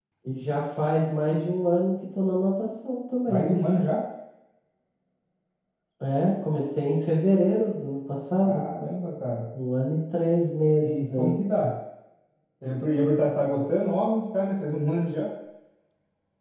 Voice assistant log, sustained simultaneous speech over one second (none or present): none